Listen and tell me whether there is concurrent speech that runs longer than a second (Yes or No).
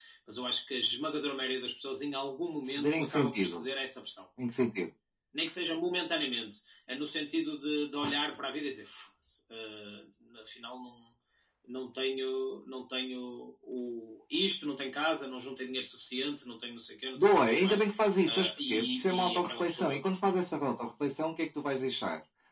Yes